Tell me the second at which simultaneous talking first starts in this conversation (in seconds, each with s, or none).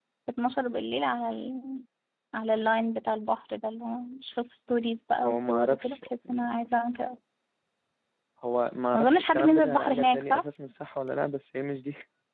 5.2 s